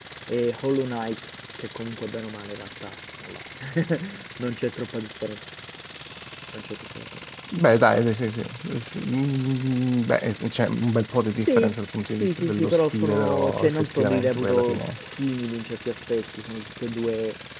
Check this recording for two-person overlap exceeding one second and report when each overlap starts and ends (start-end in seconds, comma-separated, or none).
12.2-14.8